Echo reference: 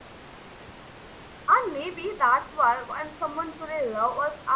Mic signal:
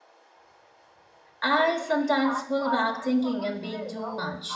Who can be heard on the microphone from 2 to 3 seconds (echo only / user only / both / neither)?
both